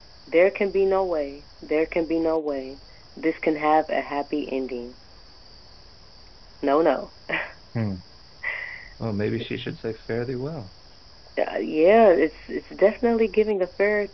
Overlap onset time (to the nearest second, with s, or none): none